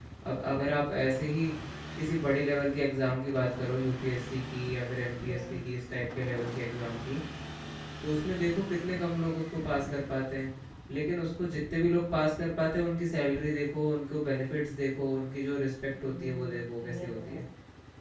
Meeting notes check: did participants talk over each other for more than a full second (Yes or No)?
Yes